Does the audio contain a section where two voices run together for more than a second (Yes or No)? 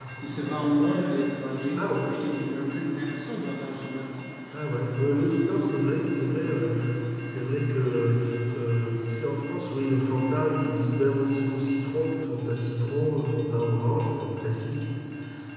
No